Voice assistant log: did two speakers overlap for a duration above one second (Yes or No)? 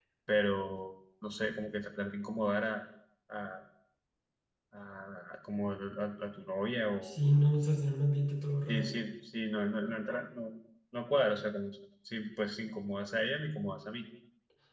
No